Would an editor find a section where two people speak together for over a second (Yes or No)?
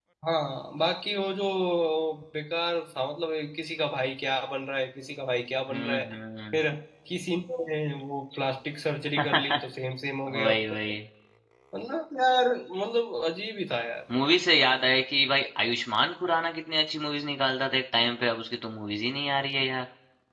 No